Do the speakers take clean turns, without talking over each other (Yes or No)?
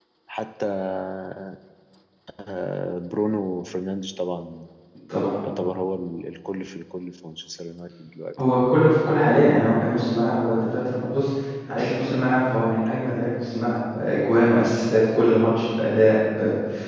Yes